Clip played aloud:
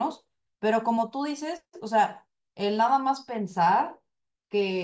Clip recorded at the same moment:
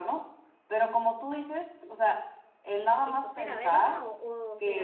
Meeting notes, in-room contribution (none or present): present